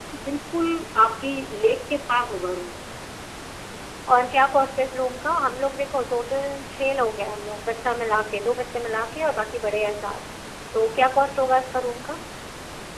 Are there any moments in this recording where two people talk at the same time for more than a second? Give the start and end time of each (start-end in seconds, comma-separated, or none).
none